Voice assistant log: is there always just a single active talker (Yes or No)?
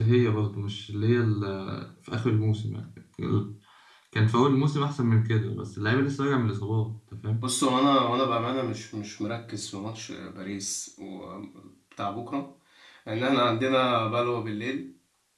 Yes